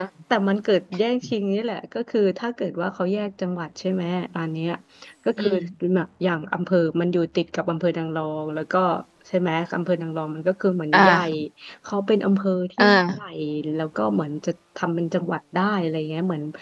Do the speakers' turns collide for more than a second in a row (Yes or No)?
No